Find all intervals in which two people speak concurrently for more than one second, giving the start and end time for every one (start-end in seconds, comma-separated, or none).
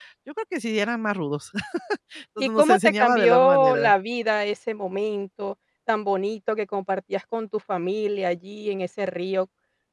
2.4-3.9